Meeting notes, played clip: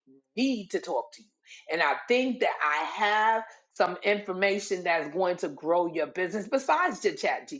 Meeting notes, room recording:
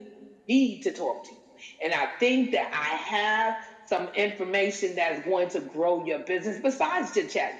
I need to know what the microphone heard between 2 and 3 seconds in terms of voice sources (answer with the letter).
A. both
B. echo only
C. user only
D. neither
B